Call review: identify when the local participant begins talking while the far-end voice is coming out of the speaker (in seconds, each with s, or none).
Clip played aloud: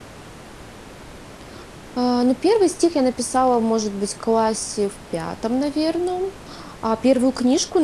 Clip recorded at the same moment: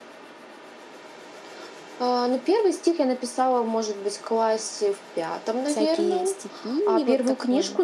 5.7 s